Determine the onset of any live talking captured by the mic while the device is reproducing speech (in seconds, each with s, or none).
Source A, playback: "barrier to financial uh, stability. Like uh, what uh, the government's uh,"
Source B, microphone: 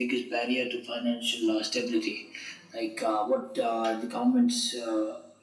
none